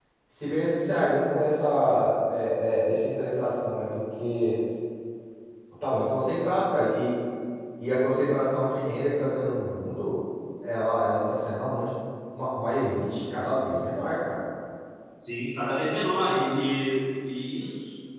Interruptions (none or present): none